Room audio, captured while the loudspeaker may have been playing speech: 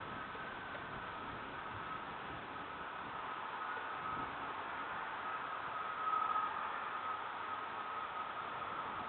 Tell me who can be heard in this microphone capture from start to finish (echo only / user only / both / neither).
neither